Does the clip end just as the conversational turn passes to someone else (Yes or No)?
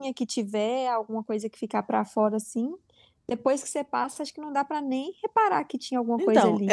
Yes